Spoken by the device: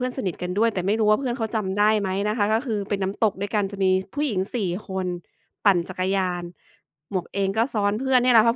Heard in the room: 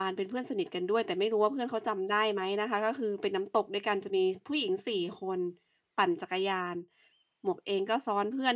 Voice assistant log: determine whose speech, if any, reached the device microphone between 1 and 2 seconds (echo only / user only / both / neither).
echo only